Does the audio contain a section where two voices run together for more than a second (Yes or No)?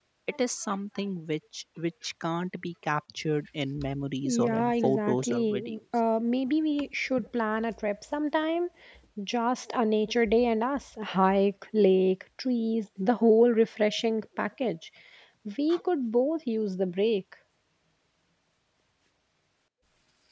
Yes